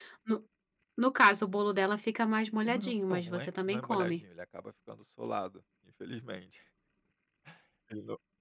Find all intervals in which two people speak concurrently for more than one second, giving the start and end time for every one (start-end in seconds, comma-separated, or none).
2.7-4.2